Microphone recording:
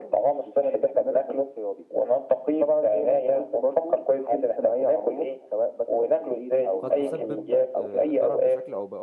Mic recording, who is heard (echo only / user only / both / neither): both